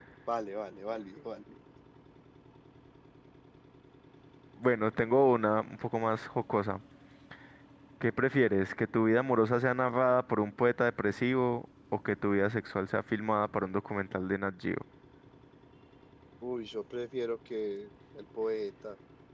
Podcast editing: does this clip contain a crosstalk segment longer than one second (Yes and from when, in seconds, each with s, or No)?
No